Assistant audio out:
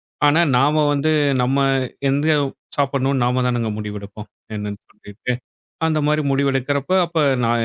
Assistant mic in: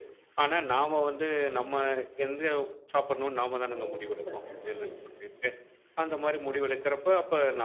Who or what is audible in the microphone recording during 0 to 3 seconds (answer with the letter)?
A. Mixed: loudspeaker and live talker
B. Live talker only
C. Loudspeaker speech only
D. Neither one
C